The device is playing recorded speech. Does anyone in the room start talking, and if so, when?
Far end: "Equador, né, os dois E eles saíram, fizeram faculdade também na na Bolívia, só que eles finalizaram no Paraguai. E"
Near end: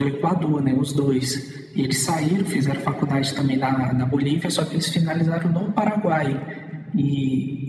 none

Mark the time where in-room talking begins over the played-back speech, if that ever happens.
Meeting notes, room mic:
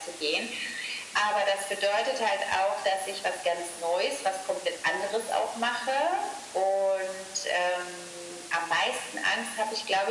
none

